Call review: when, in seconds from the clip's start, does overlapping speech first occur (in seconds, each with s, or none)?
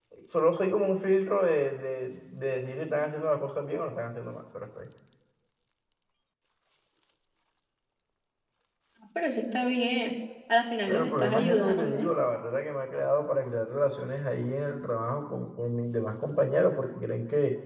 10.9 s